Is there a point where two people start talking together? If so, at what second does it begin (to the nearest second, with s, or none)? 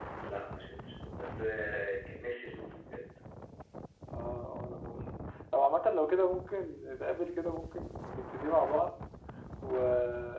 none